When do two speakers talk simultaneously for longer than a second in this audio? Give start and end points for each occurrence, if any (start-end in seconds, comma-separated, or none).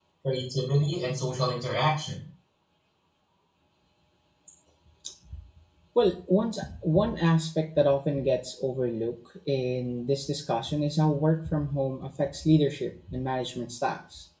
none